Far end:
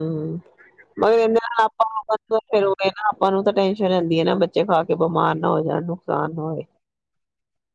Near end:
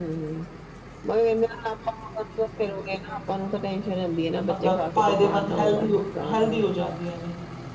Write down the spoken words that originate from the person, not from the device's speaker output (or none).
ਮਤਲਬ ਫਾਇਦੇਮੰਦ, ਹੈਲਦੀ ਹੋ ਹੈਲਦੀ ਹੋ ਜਾਂਦੀਆਂ ਨੇ।